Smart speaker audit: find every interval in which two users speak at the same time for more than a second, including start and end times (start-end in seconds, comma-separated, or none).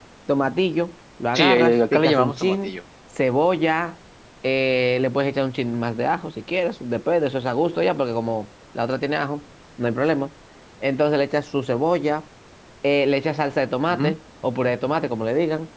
1.3-2.8